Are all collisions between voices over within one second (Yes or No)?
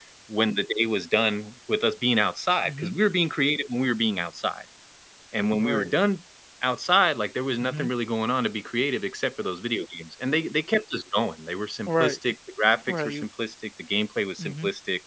Yes